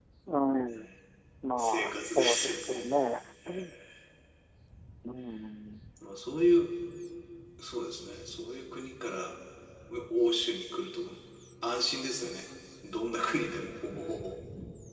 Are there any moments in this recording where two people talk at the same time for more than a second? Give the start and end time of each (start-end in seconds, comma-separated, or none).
1.6-2.9